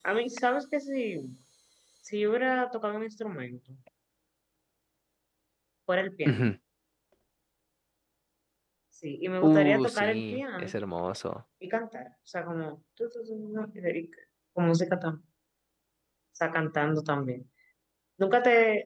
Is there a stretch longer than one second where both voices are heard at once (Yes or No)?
Yes